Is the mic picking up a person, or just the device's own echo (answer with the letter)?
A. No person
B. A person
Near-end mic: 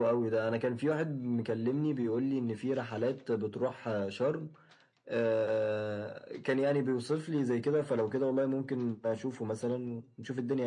A